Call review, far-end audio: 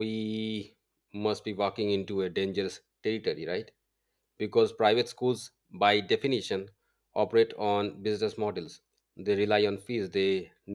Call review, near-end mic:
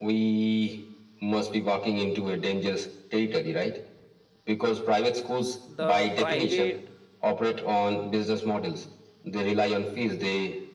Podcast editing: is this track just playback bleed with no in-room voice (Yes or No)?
No